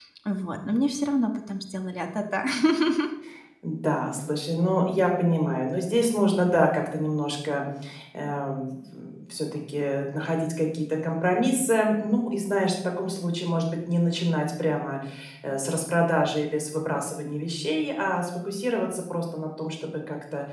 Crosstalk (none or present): none